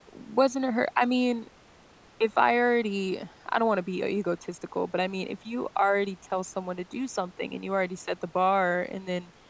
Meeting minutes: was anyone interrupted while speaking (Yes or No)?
No